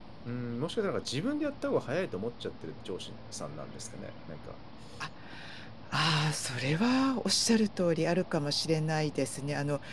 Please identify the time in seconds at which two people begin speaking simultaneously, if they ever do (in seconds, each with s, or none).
none